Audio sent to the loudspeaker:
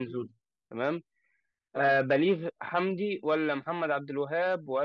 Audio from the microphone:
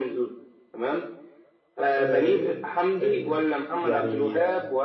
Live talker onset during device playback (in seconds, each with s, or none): 2.0 s